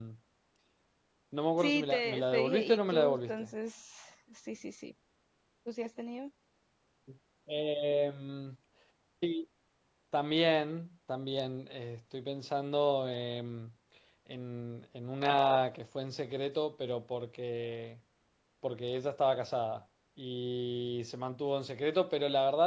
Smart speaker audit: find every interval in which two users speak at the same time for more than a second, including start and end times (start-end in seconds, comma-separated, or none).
1.6-3.5